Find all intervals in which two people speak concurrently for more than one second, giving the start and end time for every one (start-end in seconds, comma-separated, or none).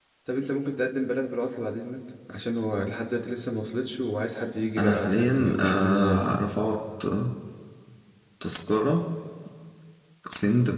4.8-6.3